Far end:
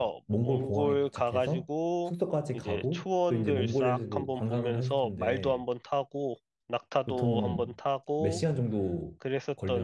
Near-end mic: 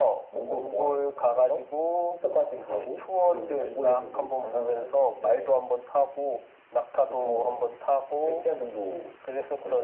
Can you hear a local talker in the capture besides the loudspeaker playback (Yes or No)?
No